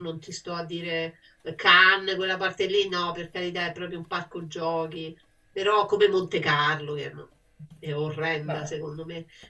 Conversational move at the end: listening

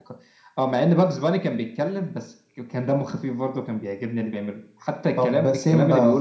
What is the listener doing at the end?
taking over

